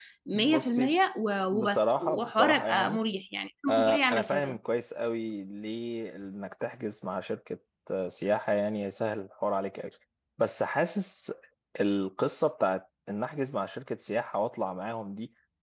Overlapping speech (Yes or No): Yes